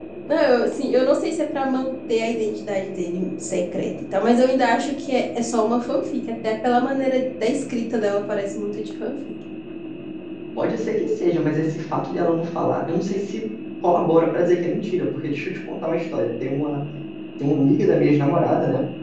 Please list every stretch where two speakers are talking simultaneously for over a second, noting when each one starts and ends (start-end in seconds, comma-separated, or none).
none